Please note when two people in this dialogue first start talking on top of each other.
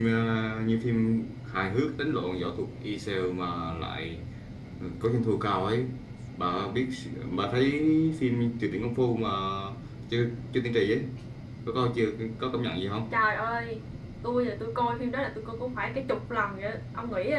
none

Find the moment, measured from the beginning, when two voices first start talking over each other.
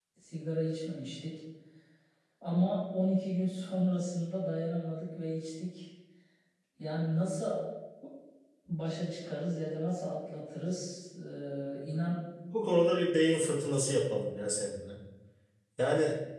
none

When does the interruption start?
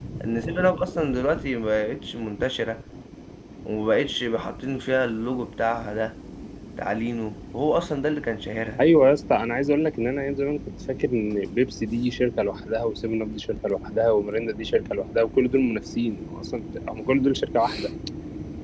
none

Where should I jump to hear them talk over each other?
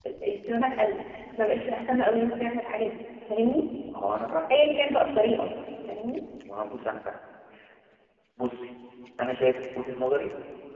none

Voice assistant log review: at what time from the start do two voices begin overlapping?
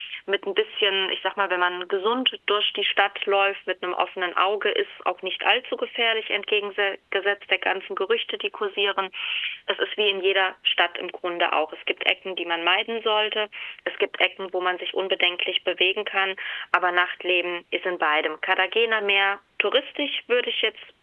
none

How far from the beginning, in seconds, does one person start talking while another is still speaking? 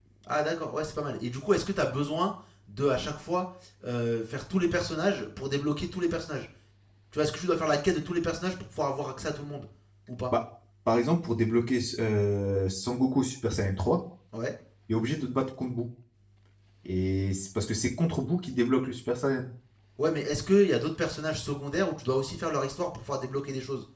none

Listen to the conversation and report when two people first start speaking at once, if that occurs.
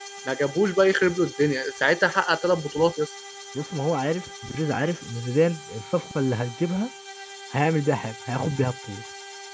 none

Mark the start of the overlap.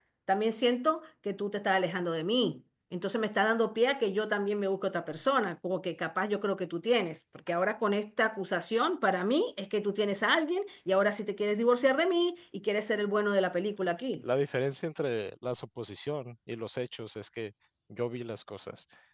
none

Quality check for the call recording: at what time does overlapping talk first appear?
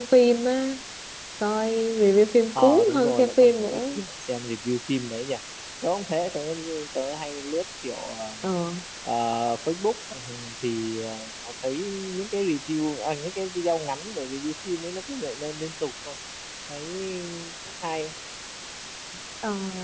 2.6 s

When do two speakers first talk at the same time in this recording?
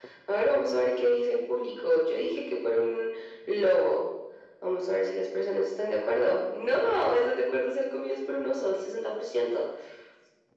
none

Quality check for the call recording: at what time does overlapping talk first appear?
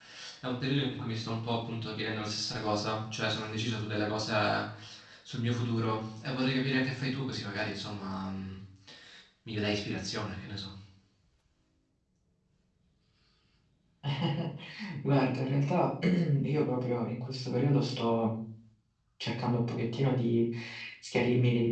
none

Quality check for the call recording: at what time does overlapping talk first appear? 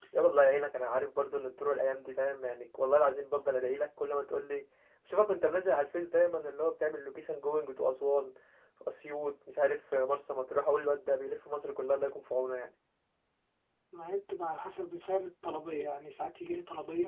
none

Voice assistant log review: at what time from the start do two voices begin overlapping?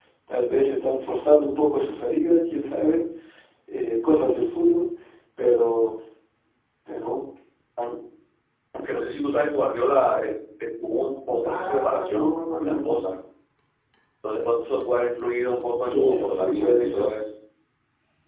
11.5 s

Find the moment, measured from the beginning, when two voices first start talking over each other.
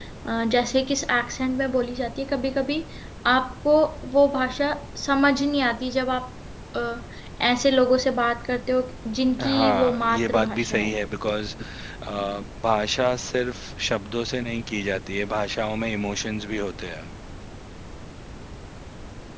9.4 s

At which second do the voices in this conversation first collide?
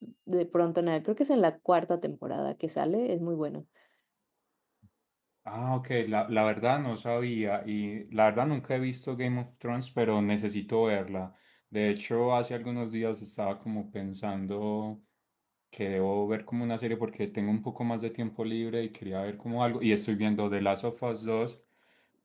none

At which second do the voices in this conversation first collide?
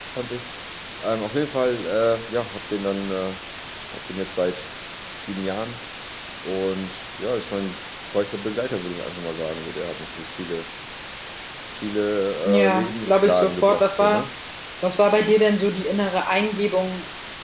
12.4 s

